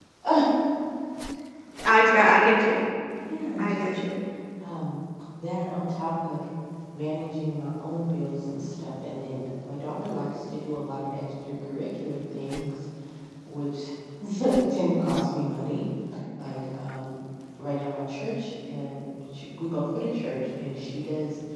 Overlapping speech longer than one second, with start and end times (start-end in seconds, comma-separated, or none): none